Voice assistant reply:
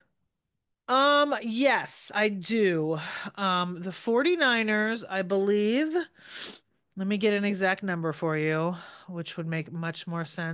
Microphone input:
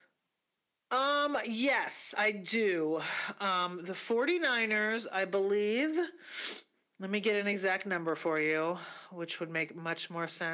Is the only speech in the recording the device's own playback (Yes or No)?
Yes